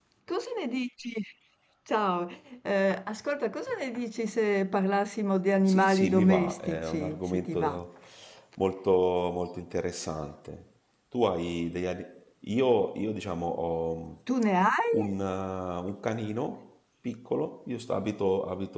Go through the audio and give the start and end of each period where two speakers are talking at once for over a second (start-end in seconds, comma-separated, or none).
5.7-7.8